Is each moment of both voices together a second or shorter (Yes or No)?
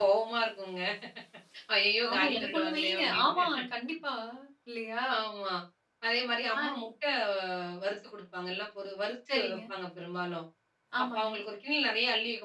No